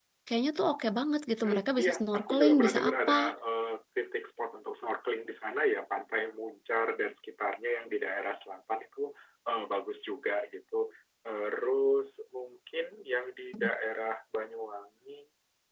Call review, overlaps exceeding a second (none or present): present